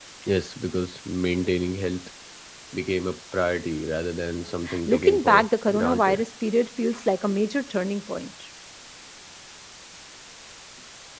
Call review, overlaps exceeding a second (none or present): present